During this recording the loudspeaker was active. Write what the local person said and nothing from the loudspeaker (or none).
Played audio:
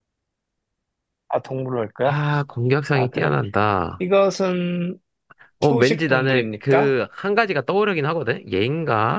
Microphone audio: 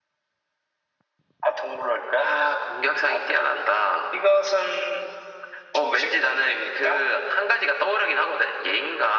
none